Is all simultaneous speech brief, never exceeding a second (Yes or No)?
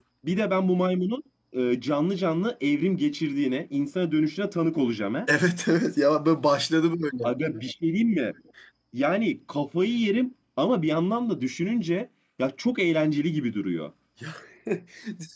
Yes